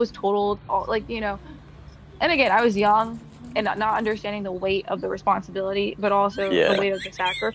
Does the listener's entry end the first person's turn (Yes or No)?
No